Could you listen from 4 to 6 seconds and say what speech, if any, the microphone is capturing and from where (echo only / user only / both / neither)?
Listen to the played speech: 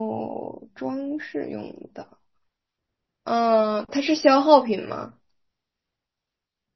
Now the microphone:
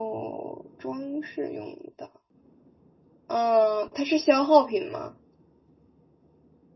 echo only